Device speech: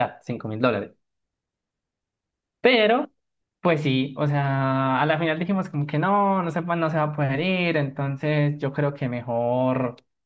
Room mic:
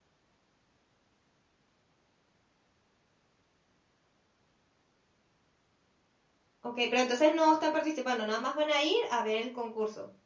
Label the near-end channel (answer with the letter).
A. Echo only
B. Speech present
B